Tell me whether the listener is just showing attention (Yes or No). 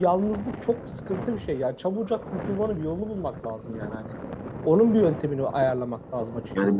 Yes